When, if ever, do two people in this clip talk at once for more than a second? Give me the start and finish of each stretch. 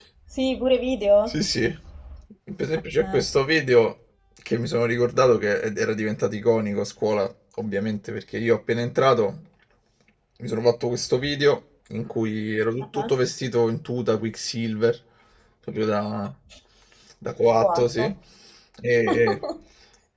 none

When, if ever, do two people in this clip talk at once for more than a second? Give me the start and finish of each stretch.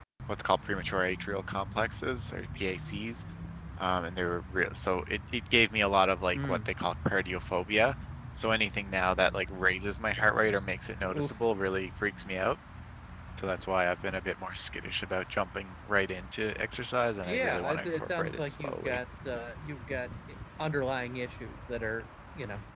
17.2-19.0

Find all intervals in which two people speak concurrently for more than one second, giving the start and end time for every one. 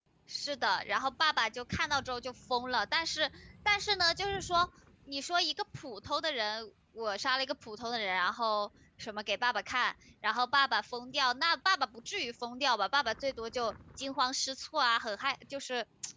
none

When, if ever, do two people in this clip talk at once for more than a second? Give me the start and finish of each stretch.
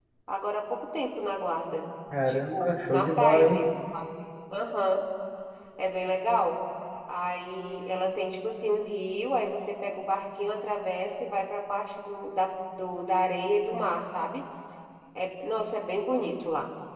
2.3-3.6

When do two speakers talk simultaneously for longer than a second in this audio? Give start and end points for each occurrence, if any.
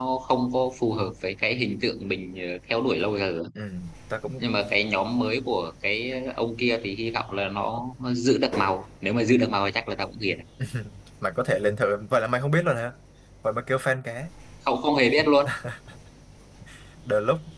none

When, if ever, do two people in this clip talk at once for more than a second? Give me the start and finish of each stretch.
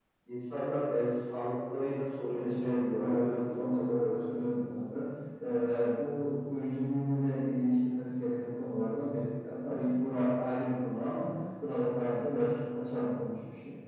2.3-4.4

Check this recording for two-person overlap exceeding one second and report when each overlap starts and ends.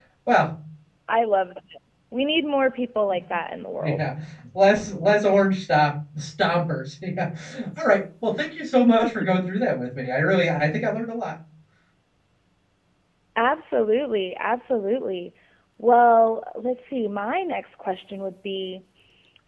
none

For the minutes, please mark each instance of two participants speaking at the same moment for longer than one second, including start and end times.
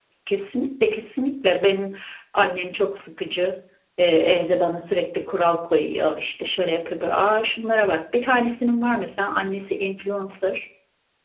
none

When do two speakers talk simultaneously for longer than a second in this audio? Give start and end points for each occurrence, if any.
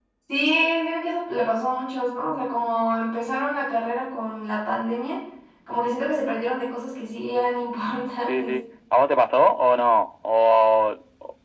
none

